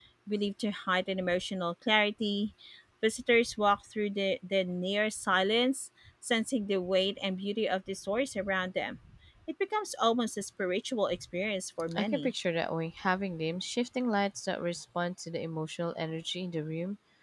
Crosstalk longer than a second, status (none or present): none